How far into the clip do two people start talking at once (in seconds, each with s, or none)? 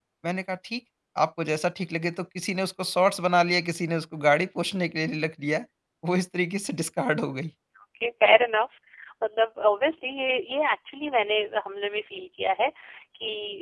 none